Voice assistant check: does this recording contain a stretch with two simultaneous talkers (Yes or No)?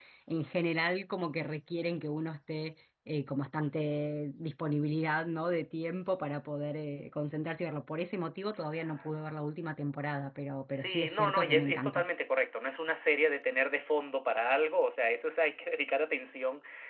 Yes